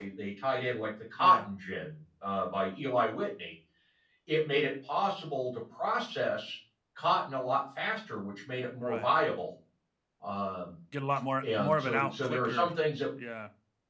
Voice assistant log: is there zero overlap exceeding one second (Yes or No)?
No